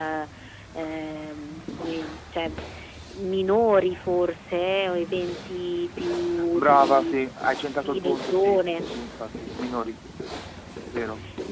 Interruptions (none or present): present